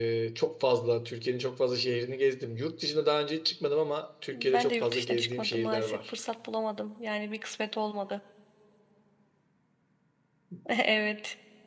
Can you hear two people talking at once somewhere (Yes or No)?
Yes